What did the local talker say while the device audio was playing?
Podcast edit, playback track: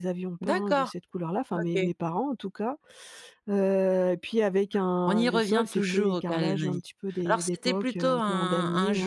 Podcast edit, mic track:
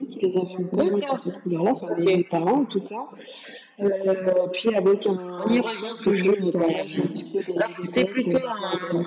Mmh mh.

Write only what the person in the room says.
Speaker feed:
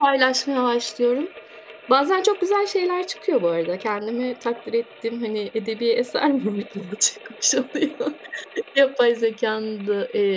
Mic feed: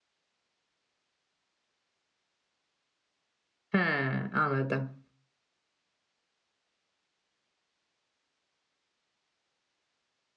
He, anladım.

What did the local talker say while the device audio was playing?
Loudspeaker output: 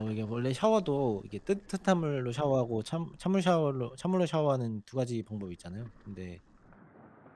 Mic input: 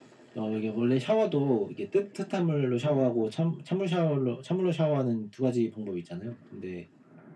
none

